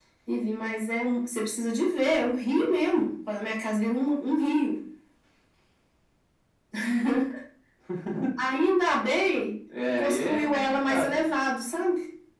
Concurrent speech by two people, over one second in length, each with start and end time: 10.0-11.2

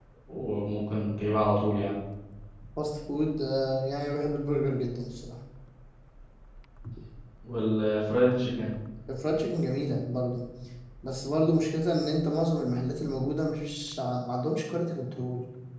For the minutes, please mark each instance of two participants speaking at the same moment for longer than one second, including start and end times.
none

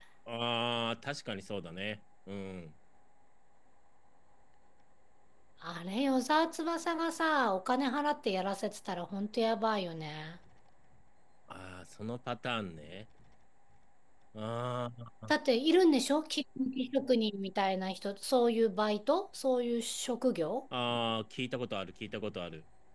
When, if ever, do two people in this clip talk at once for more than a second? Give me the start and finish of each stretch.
none

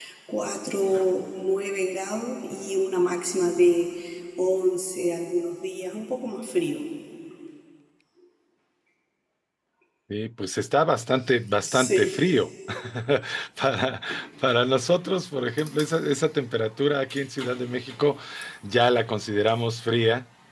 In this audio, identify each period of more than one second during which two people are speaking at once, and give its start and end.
none

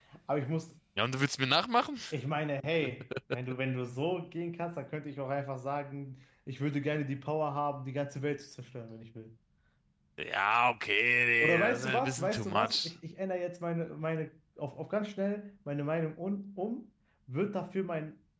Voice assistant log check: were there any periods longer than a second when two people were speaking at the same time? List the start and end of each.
11.4-12.9

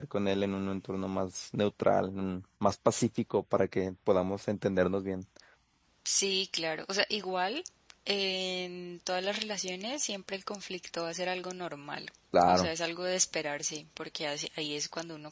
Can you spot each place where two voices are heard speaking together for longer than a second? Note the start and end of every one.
none

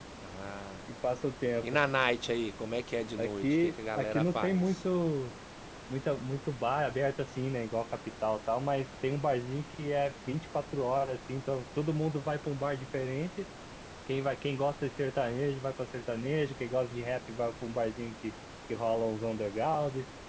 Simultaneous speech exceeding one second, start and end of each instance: 3.2-4.8

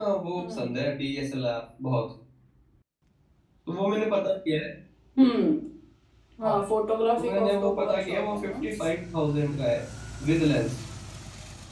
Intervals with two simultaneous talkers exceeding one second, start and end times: 7.2-8.6

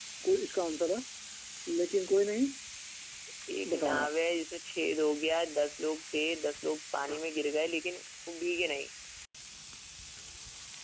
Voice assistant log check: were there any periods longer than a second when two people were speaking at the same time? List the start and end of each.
none

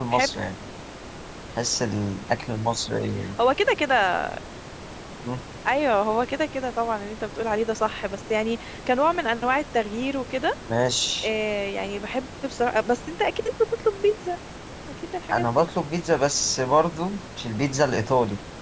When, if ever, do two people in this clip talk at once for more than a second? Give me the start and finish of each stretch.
none

